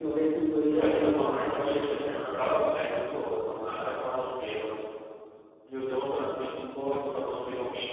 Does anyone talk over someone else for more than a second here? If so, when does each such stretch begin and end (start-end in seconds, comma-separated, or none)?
0.7-2.4